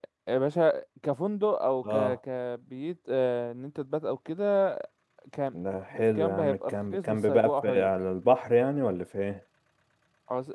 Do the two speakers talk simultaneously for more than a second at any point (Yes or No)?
Yes